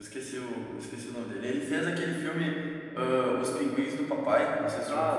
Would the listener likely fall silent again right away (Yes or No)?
No